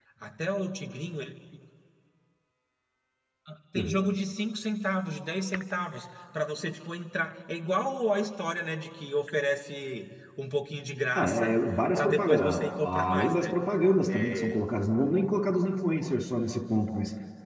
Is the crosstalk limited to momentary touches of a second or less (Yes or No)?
No